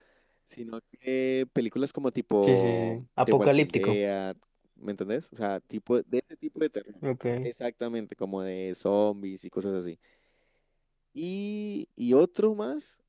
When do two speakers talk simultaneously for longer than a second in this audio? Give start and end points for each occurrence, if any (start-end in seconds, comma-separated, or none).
2.4-4.0